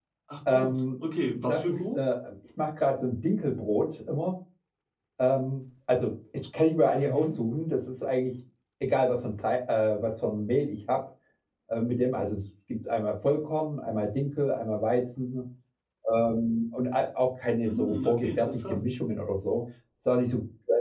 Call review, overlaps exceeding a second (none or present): present